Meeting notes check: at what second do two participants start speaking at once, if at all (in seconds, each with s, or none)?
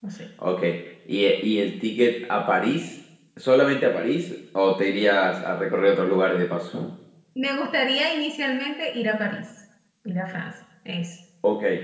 none